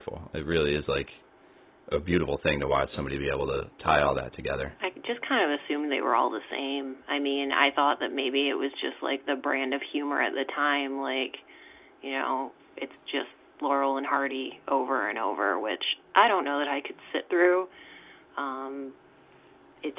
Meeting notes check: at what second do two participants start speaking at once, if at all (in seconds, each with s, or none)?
none